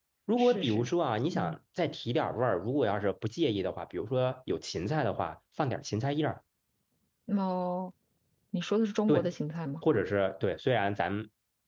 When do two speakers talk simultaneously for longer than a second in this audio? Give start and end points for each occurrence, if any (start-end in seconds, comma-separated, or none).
none